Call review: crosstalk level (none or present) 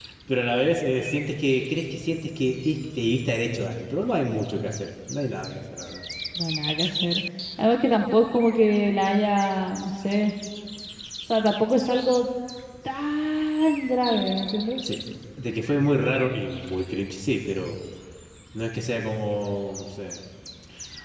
none